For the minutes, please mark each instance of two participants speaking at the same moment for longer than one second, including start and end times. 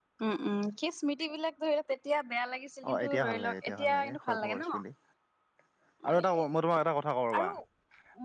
2.9-4.8

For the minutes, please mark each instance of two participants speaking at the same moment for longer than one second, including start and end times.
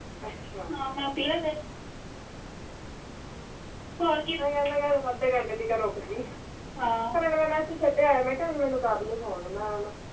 none

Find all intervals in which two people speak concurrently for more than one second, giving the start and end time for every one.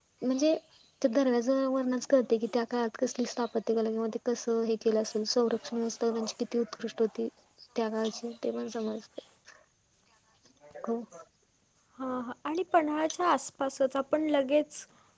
none

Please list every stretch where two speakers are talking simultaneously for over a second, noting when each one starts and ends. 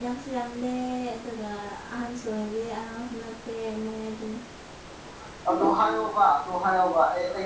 none

